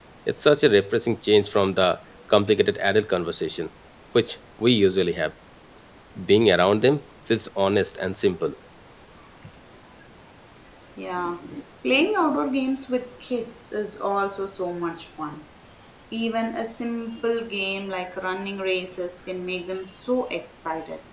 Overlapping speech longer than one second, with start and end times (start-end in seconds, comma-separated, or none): none